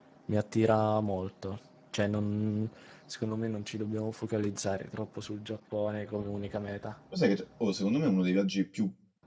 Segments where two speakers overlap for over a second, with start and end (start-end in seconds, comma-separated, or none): none